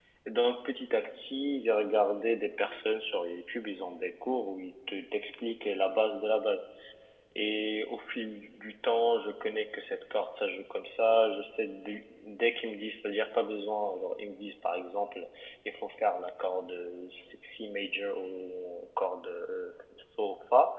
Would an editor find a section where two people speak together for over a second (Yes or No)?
No